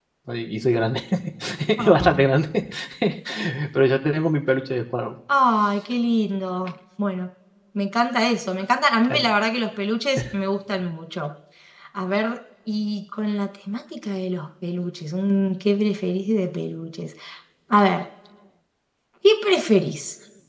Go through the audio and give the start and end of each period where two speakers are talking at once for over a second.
none

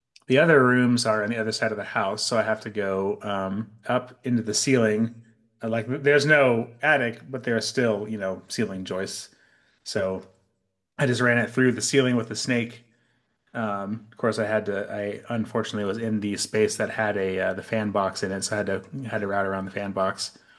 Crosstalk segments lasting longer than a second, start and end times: none

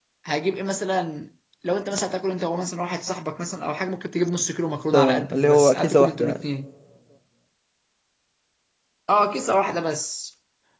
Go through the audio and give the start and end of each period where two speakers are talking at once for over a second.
4.9-6.4

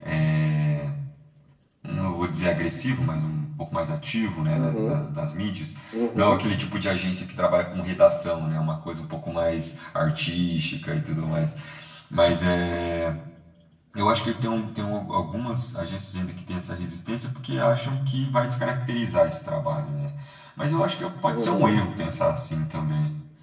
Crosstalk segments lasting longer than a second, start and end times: none

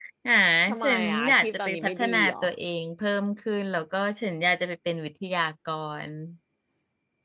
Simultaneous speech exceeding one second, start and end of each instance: 0.8-2.4

